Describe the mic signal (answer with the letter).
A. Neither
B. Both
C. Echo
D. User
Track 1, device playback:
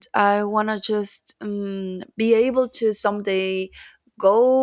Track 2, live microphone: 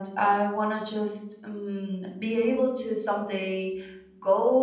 C